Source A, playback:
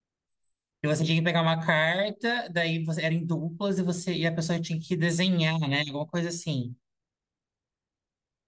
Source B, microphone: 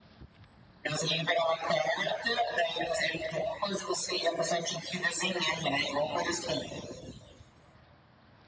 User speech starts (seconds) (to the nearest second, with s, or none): none